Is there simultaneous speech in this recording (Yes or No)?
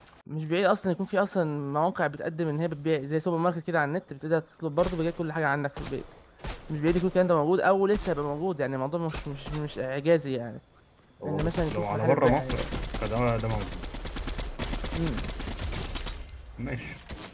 Yes